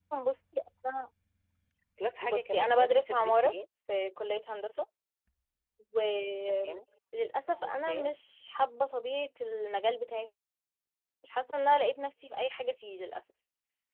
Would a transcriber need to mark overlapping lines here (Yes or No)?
Yes